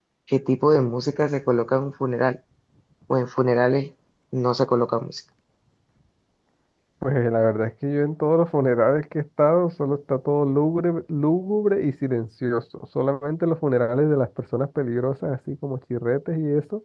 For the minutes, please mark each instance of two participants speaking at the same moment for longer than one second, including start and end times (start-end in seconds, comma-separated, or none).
none